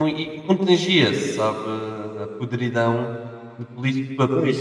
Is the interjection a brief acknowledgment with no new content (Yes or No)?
No